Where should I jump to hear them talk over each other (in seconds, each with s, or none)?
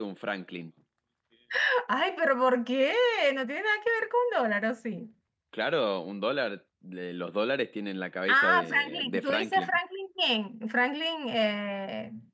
8.3 s